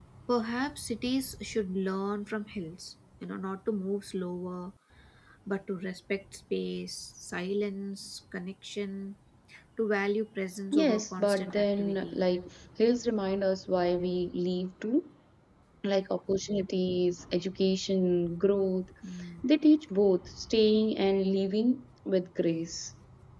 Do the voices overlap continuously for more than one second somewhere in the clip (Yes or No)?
Yes